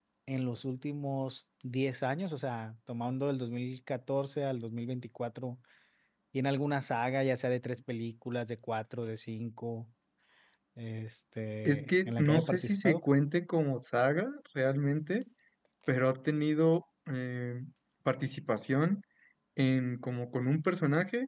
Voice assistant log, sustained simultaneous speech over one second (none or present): present